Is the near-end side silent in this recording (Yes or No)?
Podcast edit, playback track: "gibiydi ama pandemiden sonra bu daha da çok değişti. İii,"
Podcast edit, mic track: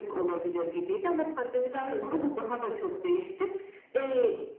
No